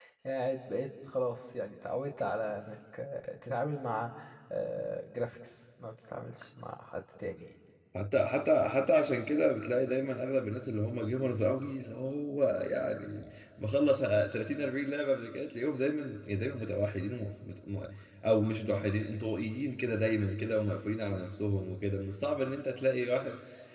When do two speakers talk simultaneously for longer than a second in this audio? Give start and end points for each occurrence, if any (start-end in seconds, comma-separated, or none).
none